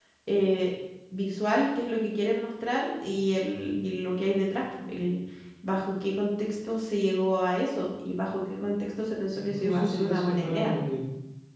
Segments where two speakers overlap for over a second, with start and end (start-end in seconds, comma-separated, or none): 9.3-10.7